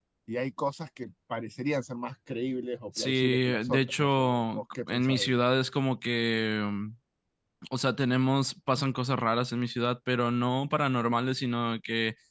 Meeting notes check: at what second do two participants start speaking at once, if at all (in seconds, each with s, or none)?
3.0 s